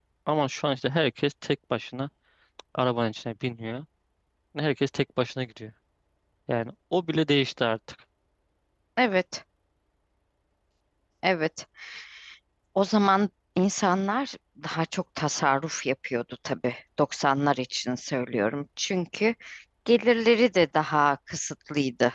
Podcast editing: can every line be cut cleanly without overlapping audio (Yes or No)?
Yes